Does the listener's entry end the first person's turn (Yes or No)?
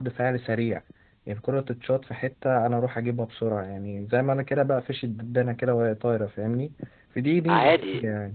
Yes